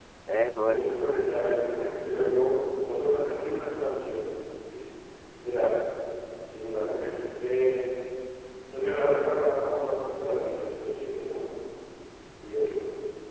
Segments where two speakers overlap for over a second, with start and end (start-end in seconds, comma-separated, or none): 0.7-2.0